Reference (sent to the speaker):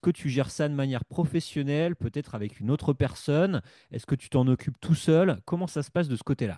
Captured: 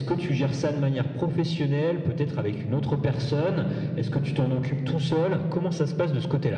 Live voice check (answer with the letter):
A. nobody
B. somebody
A